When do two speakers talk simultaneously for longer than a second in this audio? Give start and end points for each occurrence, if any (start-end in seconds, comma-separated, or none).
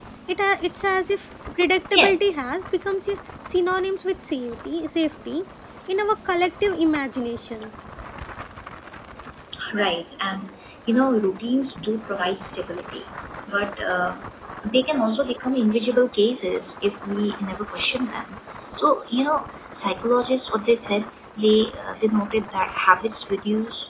none